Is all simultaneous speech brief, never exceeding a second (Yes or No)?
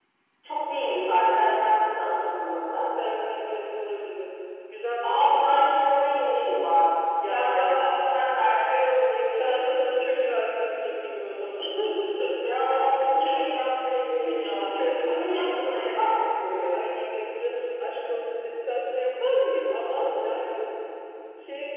No